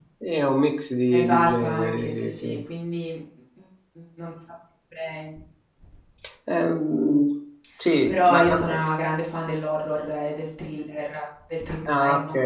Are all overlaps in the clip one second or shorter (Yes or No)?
No